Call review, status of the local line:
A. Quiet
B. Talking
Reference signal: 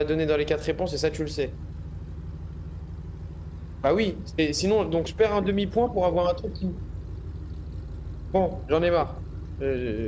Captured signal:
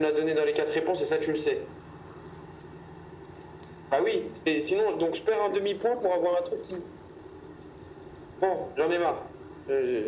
A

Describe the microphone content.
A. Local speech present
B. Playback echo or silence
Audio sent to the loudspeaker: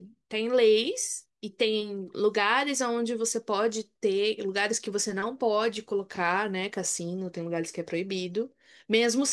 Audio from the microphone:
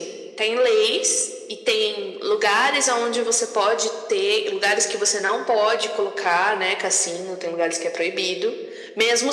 B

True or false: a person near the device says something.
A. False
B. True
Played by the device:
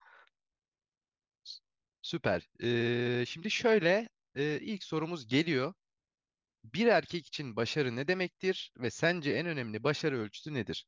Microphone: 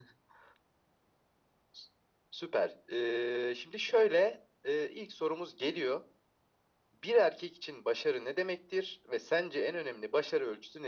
A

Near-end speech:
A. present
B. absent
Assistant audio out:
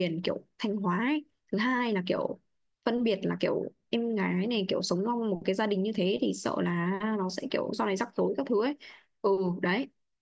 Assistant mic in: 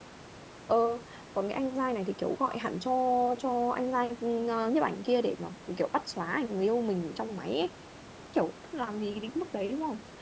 A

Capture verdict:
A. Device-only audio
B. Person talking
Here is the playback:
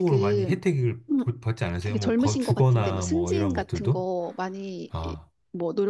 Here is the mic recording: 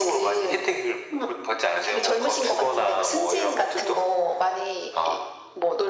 A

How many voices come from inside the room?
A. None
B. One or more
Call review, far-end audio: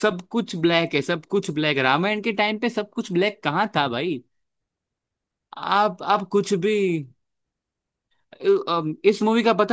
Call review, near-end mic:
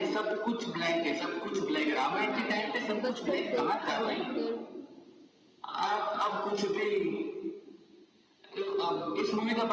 B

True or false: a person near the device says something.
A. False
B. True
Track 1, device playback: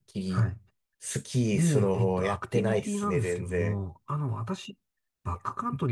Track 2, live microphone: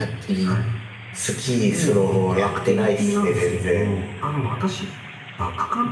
A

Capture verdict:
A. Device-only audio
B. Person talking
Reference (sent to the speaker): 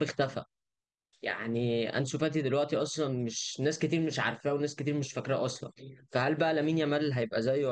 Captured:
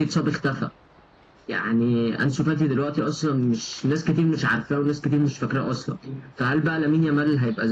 A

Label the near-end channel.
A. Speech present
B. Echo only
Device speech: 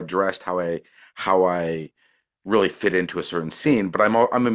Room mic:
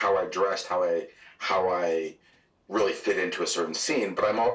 B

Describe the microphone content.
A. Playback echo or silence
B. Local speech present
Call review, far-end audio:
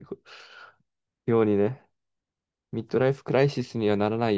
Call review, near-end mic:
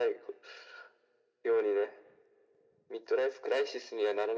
A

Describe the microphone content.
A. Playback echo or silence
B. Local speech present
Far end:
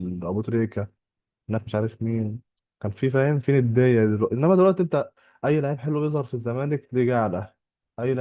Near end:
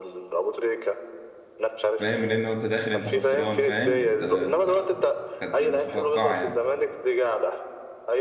B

